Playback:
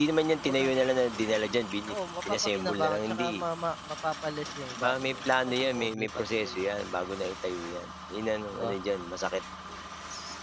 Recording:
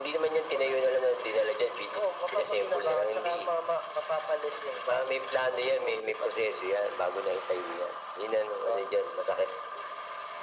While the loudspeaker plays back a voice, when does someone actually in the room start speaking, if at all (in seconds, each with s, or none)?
none